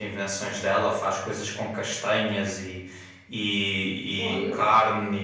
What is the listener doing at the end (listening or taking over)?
listening